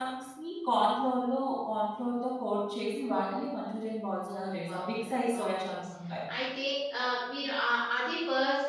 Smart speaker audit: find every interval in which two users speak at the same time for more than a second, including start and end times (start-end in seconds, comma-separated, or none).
4.3-5.7